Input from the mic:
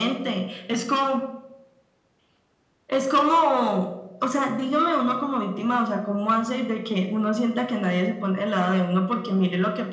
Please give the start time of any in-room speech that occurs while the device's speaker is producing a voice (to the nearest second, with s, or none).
none